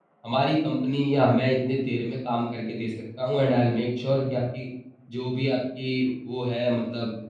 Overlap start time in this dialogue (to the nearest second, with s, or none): none